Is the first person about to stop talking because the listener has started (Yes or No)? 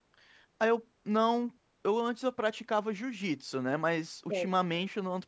No